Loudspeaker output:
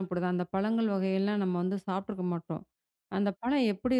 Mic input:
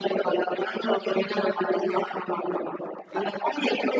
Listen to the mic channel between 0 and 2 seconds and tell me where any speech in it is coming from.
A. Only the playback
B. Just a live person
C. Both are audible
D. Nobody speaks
A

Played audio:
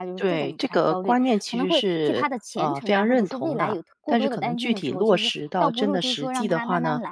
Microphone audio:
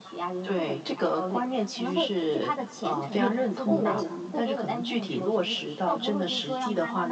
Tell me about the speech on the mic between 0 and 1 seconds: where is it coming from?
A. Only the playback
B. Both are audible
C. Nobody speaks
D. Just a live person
A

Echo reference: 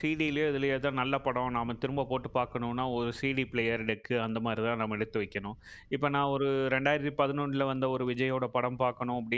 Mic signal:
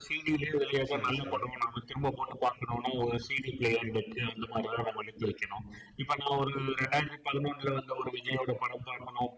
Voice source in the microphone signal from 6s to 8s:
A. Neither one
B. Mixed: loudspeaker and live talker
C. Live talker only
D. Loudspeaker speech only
D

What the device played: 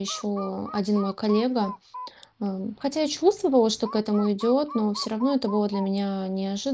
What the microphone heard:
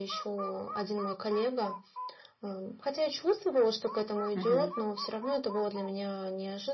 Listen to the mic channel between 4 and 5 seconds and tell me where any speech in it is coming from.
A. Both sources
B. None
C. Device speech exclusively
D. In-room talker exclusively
A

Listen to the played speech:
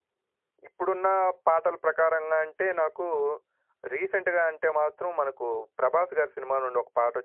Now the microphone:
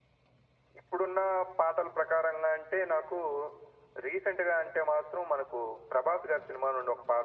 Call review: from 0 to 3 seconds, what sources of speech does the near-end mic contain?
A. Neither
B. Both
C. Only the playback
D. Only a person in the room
C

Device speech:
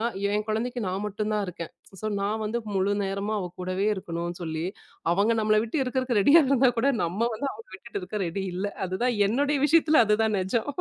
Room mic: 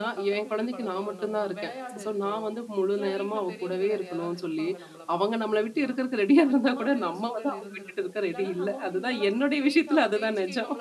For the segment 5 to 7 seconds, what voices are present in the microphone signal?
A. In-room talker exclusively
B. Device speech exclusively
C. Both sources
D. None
C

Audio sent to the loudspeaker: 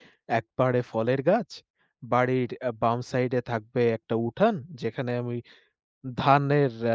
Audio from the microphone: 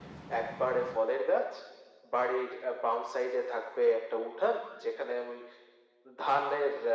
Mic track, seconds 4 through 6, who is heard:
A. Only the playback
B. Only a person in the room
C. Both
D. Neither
A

